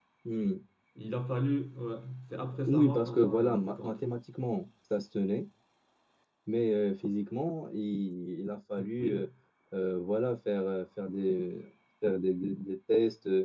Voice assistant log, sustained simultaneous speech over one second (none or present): present